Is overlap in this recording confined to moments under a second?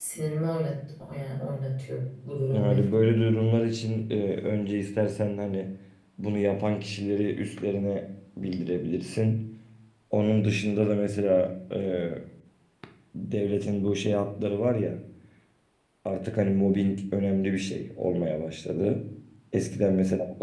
Yes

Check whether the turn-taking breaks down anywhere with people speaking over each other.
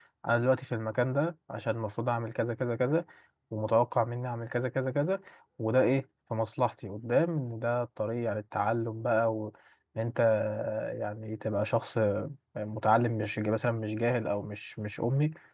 No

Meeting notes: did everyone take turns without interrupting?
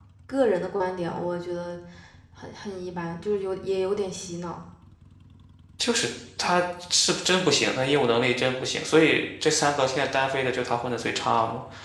Yes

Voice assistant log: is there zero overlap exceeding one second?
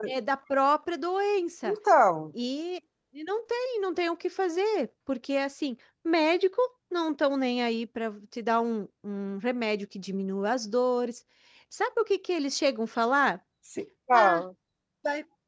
Yes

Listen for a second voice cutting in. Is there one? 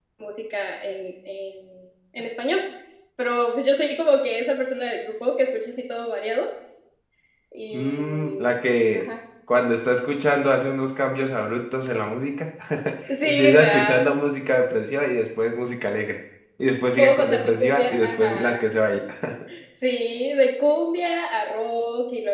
Yes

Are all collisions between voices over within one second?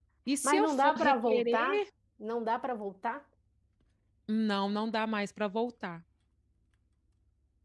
No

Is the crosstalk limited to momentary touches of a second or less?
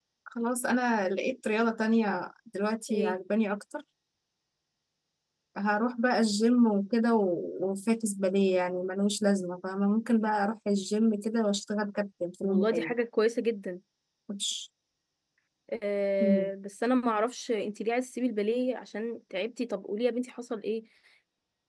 Yes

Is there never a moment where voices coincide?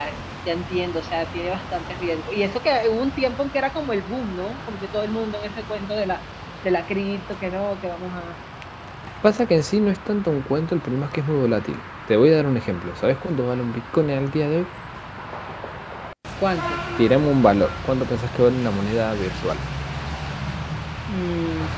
Yes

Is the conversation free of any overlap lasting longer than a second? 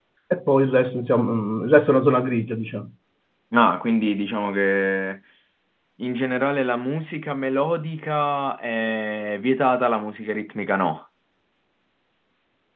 Yes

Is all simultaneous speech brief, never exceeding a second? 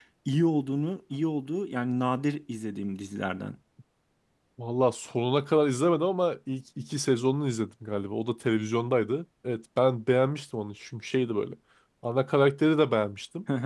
Yes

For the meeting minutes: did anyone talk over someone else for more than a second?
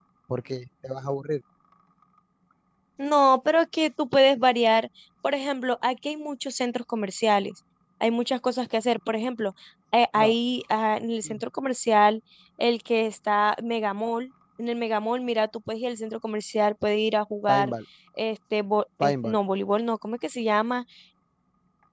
No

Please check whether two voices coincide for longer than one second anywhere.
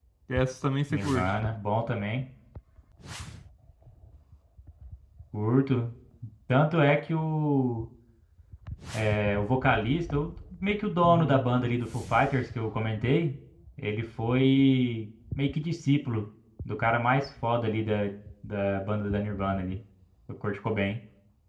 No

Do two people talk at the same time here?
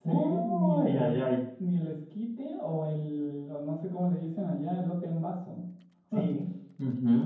Yes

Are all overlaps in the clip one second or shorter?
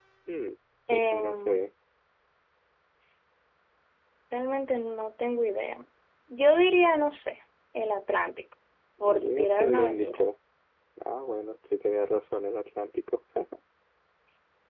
No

